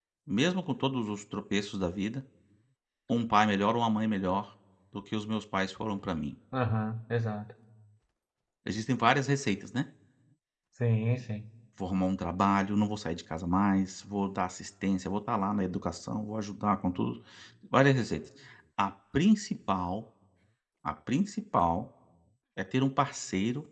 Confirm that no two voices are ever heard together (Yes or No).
Yes